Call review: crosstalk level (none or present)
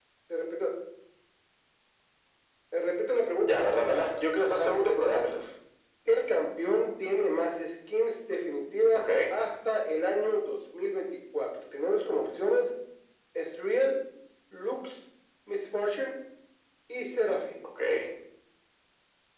present